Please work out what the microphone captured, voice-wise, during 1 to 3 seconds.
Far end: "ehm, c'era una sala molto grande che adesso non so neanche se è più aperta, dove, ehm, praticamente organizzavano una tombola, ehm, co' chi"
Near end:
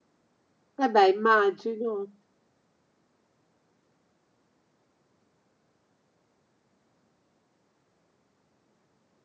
user only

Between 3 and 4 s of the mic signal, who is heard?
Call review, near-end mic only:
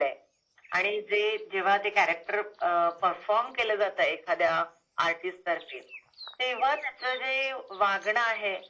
echo only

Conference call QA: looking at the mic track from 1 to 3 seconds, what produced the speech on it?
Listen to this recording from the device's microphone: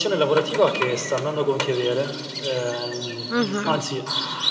echo only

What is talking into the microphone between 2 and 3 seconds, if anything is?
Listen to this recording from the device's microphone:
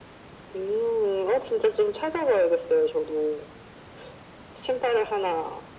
echo only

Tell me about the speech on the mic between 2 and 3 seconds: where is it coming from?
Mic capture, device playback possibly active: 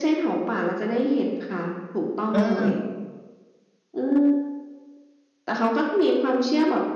both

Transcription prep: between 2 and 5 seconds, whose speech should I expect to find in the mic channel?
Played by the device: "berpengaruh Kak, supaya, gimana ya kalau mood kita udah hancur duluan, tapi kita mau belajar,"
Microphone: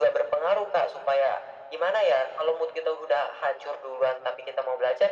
echo only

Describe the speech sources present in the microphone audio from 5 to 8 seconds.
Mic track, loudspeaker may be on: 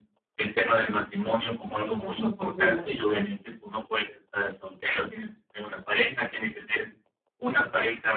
echo only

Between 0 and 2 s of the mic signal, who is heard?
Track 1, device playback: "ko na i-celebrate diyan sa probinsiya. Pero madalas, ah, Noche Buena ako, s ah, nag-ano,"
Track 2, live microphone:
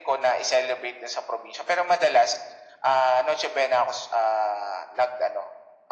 echo only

